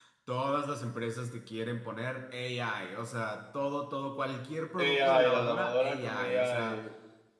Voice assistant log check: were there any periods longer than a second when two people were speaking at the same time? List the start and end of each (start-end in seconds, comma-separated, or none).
4.8-6.8